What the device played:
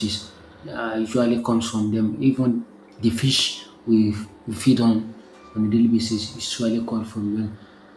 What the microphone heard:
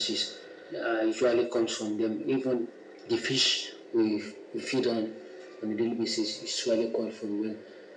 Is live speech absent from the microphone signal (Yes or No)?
Yes